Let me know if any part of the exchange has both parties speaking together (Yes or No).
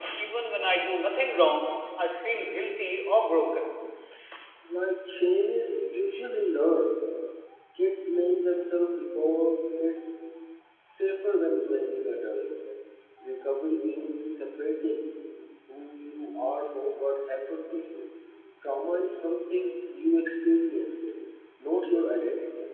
No